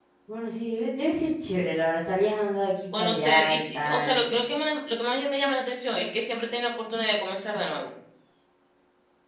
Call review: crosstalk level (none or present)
present